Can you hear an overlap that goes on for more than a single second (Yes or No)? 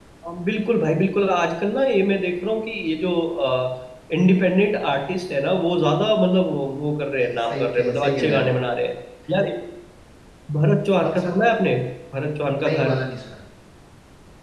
Yes